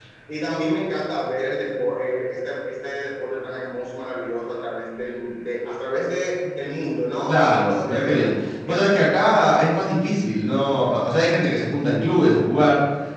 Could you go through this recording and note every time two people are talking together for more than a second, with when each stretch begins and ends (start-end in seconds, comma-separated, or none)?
7.3-9.0